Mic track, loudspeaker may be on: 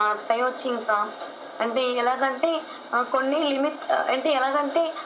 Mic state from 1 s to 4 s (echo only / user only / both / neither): echo only